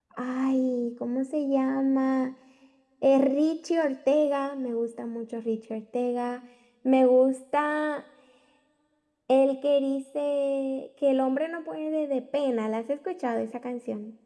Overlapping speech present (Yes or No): No